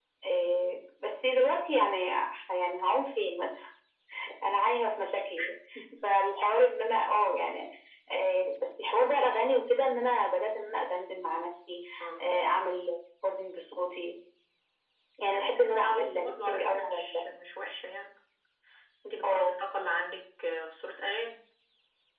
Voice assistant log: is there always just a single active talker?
No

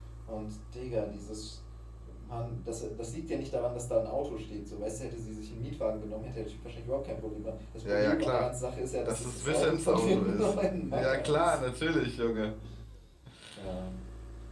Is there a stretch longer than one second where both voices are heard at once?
Yes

